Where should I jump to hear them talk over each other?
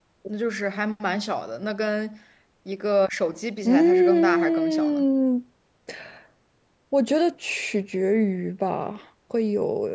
4 s

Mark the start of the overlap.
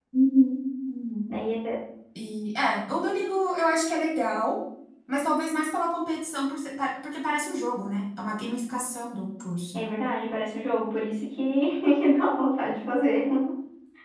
none

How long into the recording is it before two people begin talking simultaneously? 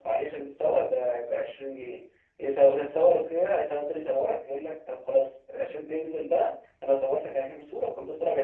none

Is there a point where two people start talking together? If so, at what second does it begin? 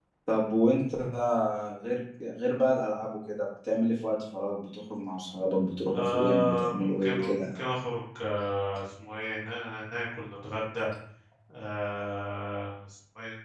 6 s

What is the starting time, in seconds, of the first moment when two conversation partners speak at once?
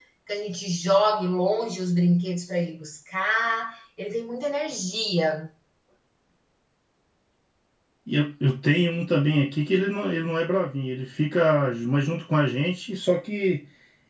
none

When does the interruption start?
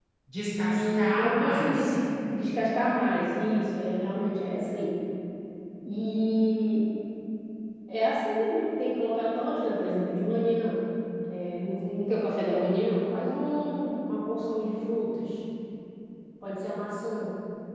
1 s

